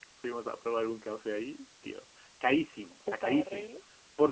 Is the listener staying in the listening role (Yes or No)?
Yes